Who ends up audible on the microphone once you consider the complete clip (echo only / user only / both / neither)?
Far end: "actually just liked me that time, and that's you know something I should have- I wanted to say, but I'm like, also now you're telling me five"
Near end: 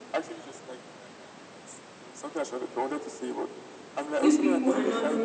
both